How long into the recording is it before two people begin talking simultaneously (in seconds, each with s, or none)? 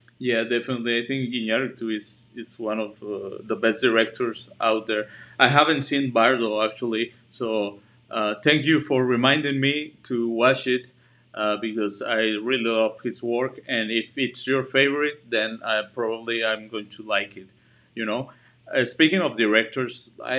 none